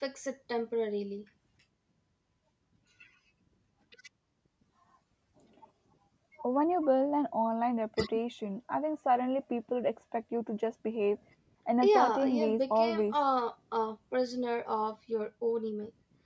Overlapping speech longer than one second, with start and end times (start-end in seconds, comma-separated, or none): 11.8-13.1